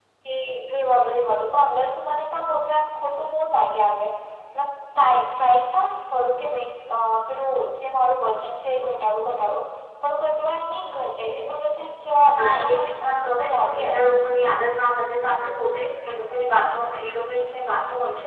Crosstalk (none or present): present